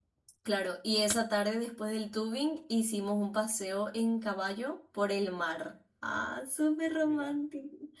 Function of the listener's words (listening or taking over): listening